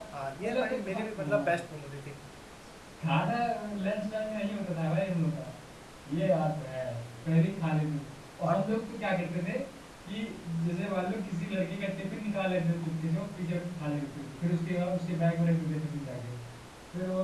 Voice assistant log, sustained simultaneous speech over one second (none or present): present